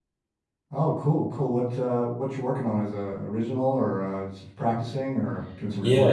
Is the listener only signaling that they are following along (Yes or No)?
No